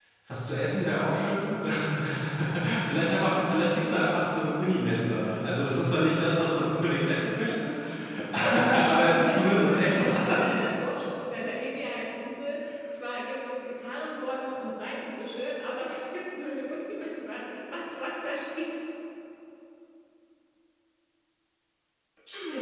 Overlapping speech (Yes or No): Yes